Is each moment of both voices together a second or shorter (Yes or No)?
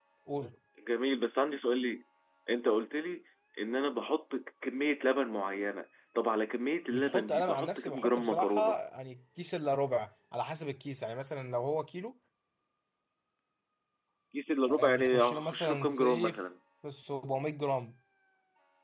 No